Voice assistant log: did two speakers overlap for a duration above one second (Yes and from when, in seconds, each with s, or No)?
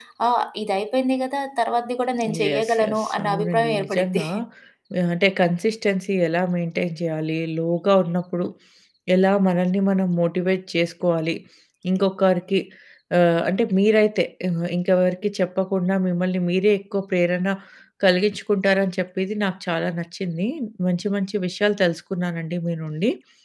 Yes, from 2.2 s